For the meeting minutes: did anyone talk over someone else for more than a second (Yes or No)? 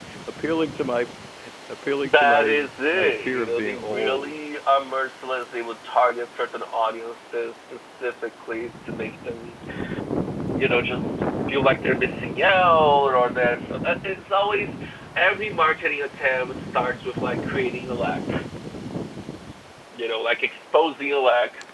Yes